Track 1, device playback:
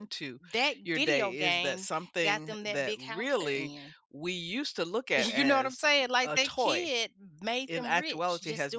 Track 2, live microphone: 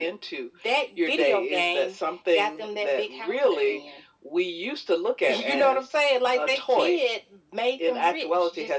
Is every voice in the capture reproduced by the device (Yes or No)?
Yes